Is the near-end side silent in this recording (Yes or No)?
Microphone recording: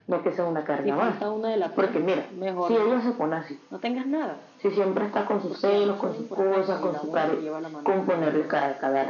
No